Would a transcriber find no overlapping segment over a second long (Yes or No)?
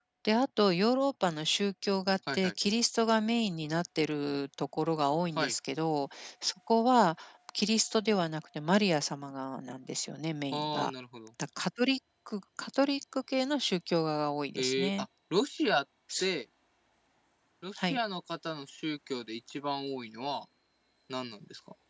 Yes